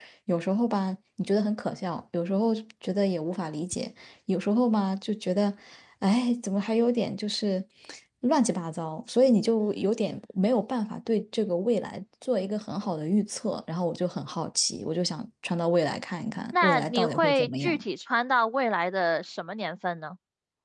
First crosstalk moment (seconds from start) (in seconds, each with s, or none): 16.5 s